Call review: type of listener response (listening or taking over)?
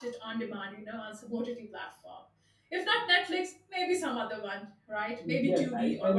taking over